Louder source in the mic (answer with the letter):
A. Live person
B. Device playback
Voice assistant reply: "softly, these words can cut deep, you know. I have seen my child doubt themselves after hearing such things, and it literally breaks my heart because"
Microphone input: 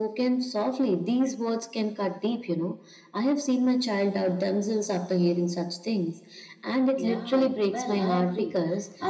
B